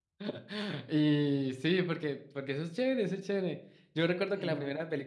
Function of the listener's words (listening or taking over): listening